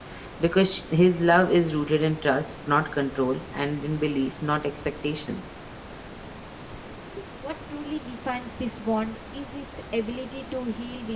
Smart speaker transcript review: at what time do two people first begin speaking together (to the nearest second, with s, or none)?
none